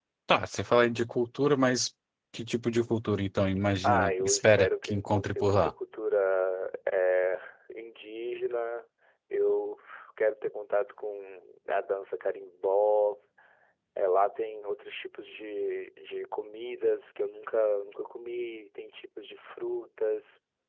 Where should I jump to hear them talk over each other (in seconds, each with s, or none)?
3.8 s